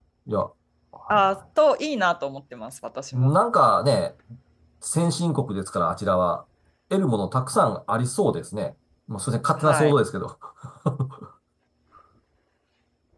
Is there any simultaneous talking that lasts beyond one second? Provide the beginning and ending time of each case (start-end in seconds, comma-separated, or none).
none